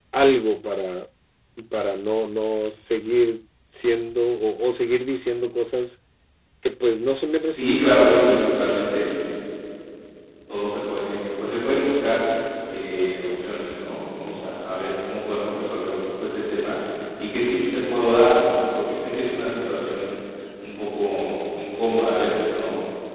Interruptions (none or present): present